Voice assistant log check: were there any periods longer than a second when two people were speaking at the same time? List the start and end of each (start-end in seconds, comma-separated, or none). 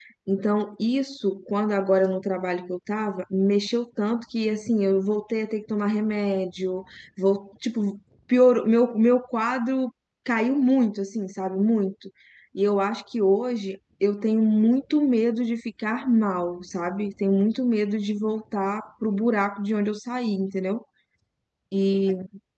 none